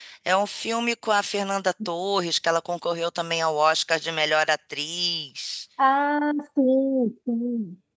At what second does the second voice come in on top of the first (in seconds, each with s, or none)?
none